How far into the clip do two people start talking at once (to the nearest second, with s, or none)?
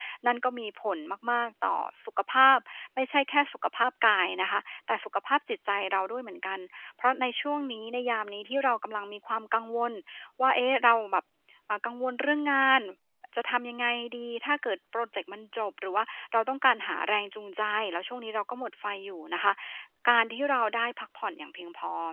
none